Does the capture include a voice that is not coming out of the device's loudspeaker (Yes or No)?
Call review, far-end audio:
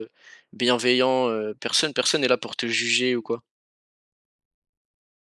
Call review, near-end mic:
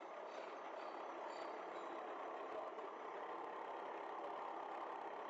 No